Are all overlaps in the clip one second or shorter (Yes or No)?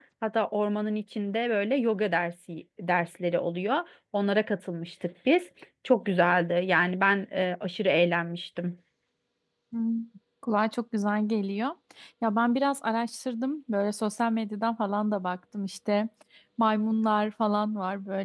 Yes